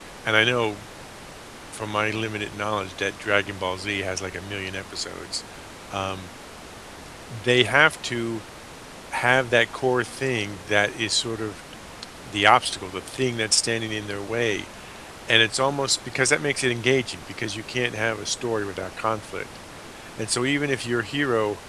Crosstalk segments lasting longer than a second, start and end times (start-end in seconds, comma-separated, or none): none